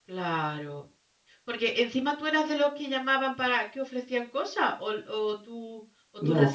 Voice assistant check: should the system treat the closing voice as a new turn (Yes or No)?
Yes